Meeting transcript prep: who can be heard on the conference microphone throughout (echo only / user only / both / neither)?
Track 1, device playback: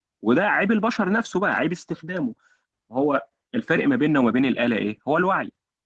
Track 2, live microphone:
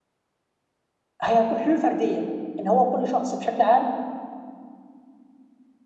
user only